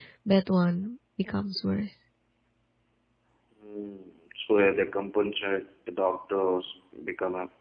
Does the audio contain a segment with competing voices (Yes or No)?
No